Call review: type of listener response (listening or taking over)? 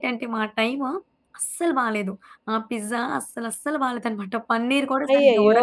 taking over